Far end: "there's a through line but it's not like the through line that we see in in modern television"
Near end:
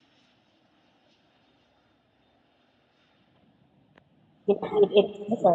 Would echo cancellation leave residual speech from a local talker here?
Yes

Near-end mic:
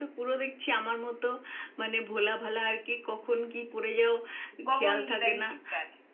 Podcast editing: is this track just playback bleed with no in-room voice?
No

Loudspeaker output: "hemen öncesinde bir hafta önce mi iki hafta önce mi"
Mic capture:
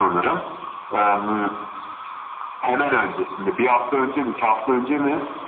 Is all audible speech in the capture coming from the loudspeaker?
Yes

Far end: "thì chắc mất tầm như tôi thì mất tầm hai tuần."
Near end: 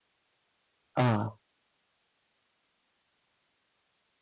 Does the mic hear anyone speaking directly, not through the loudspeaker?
Yes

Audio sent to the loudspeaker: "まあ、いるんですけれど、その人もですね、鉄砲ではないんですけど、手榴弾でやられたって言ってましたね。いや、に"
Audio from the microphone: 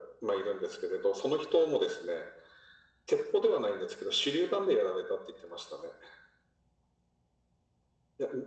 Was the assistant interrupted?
No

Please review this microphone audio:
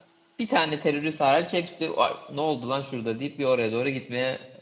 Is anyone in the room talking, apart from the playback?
Yes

